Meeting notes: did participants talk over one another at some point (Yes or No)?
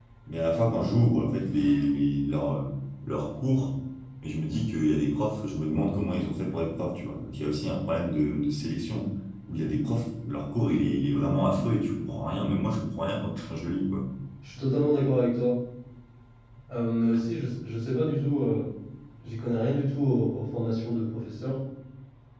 No